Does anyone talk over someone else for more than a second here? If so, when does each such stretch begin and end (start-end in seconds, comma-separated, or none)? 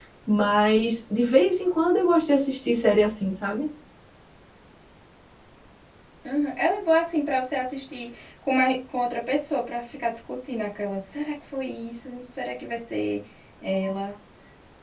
none